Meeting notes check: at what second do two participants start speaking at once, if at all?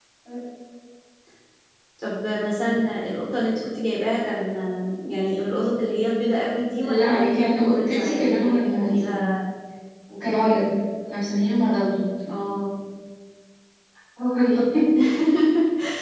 6.8 s

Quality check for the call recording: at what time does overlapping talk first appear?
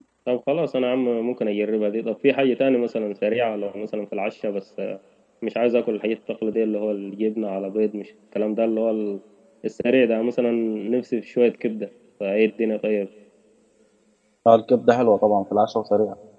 none

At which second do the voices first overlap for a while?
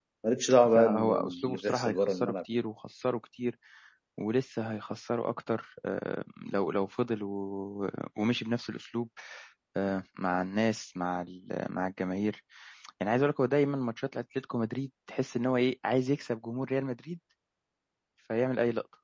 0.7 s

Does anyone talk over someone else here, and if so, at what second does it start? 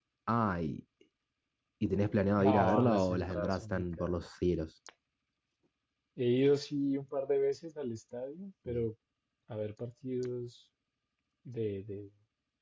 2.4 s

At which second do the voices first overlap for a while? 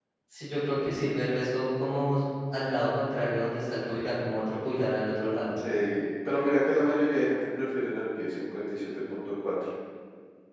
none

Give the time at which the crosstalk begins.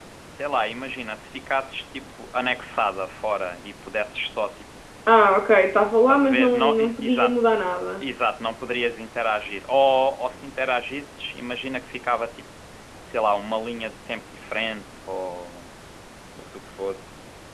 6.1 s

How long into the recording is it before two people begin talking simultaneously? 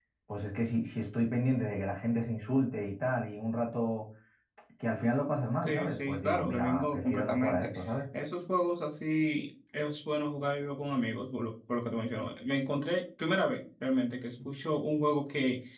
5.6 s

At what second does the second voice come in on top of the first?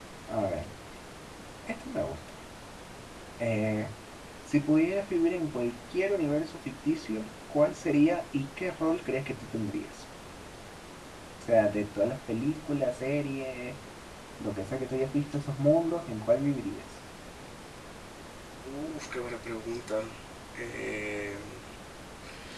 none

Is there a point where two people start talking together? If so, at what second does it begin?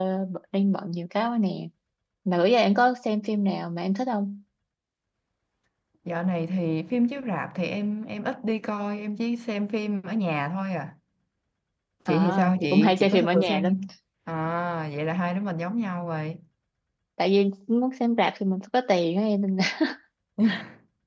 12.1 s

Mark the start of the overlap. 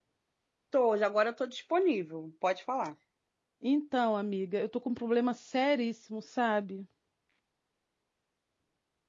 none

